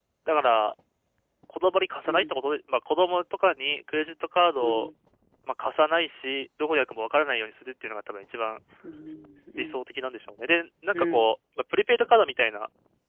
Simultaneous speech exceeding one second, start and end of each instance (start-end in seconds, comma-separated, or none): none